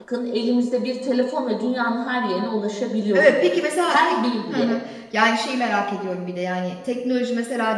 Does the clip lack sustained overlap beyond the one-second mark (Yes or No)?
Yes